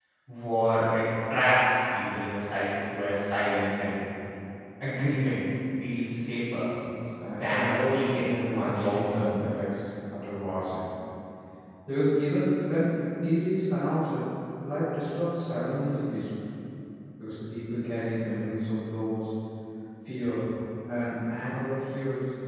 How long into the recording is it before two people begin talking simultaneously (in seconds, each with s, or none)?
7.3 s